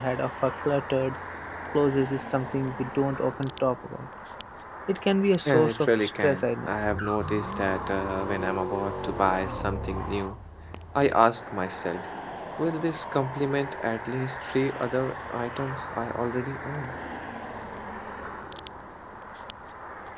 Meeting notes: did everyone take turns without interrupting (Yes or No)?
No